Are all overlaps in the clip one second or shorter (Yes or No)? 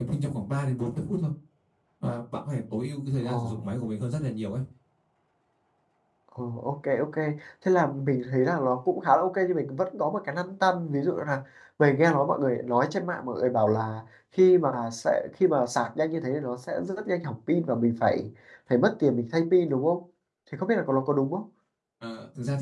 Yes